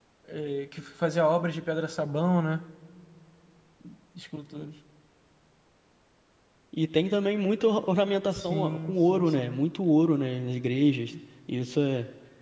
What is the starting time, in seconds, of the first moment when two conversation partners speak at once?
8.3 s

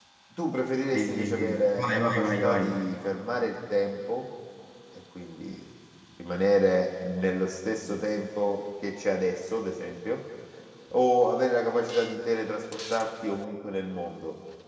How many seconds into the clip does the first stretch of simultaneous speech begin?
1.0 s

